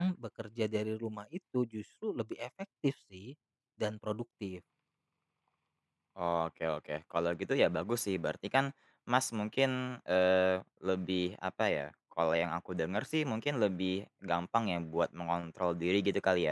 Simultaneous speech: No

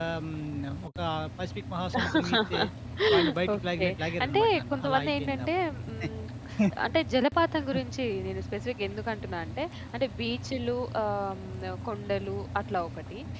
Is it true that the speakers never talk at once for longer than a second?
No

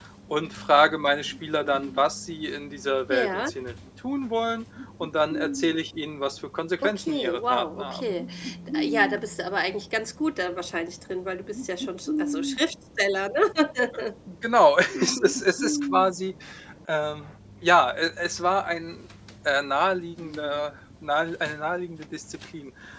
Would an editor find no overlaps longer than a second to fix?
No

